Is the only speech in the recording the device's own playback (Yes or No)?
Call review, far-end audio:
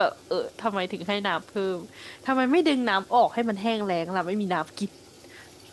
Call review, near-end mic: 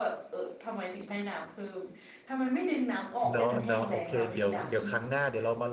No